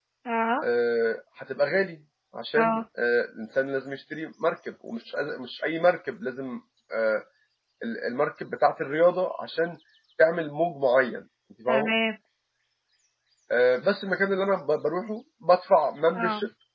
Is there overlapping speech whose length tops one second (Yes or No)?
No